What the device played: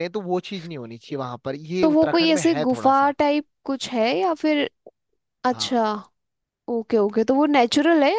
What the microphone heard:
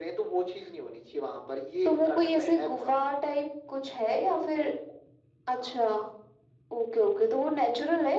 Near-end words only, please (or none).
none